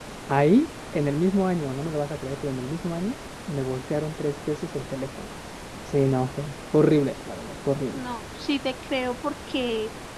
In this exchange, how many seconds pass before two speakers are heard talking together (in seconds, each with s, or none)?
none